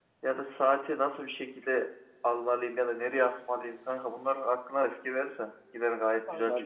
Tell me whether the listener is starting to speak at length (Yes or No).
Yes